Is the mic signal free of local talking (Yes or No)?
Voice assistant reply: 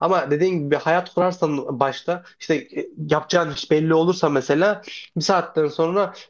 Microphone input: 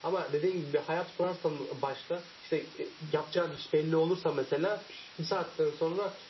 Yes